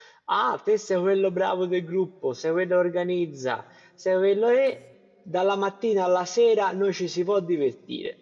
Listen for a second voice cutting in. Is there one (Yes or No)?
No